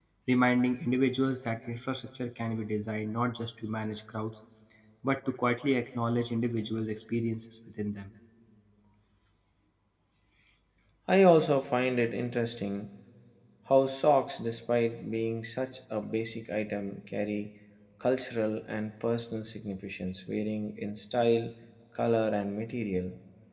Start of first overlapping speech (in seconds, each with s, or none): none